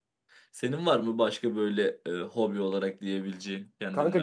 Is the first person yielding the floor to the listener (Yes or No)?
Yes